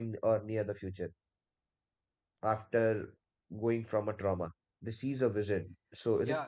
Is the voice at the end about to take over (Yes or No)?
Yes